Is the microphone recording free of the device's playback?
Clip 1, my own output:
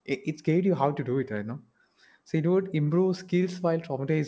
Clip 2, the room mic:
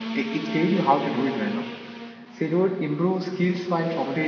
No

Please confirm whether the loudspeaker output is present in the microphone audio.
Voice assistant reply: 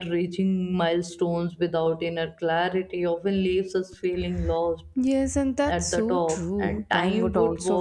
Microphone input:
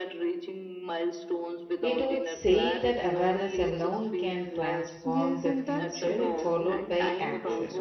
Yes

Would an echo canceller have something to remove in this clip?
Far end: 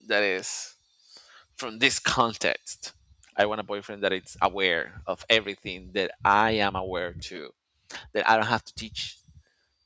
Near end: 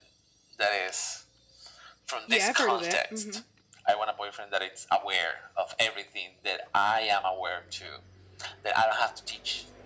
Yes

